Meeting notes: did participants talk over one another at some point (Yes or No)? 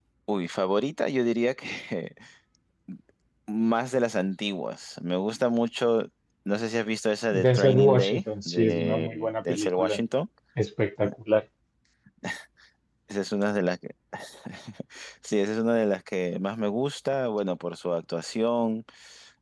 Yes